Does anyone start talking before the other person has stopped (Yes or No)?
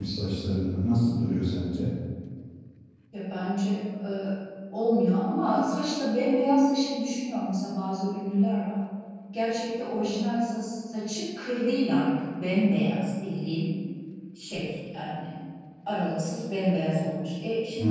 No